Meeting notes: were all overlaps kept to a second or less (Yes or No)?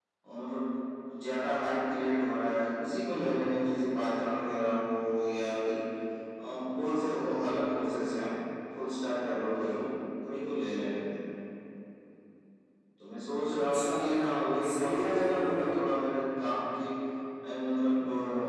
No